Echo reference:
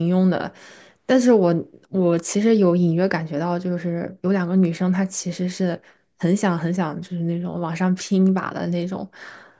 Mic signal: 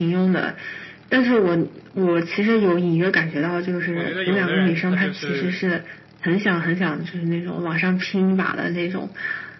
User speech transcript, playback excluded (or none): 我觉得有的人他就是